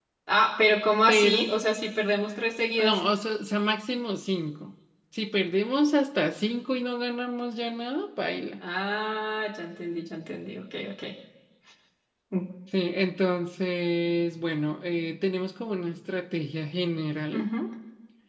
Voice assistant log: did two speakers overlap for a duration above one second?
No

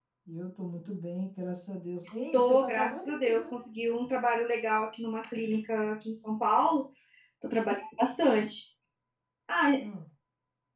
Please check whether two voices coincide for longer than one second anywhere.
Yes, from 2.3 s

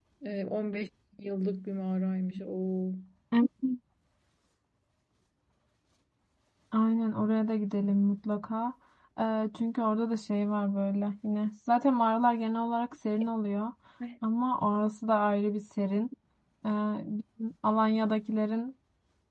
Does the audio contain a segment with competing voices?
No

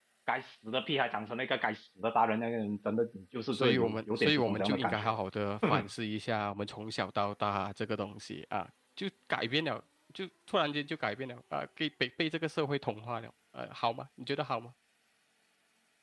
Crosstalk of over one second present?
Yes, from 3.5 s

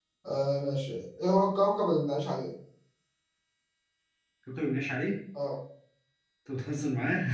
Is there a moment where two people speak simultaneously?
No

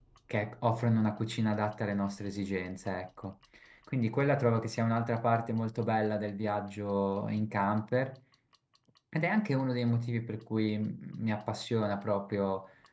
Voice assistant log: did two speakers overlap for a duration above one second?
No

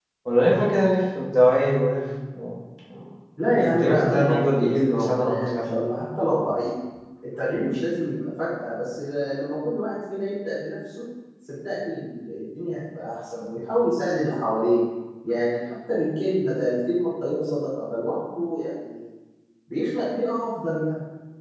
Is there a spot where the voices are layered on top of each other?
Yes, from 3.5 s

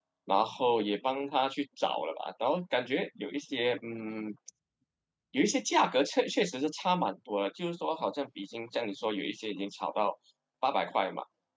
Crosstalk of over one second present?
No

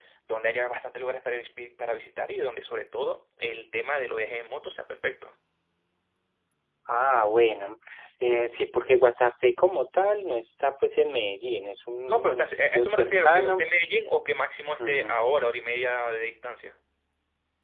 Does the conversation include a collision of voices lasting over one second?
Yes, from 12.1 s

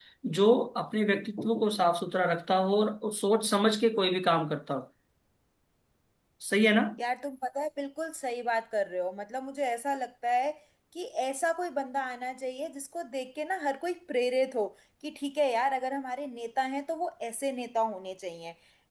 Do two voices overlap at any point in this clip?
No

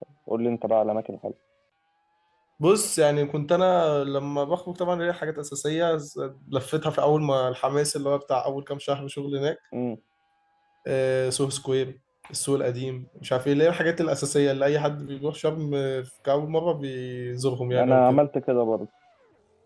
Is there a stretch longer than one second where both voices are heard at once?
No

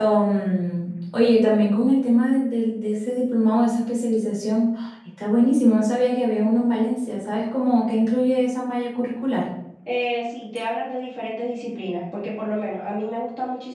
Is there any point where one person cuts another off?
No

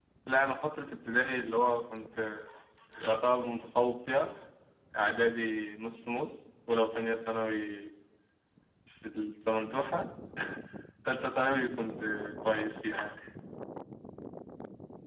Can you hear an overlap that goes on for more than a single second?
No

